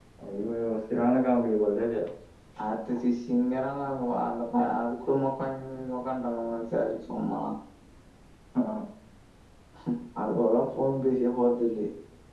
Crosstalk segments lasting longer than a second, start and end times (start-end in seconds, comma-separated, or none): none